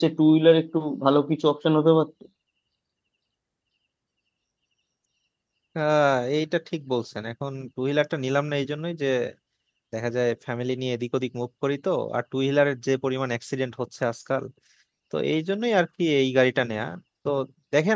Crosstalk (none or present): none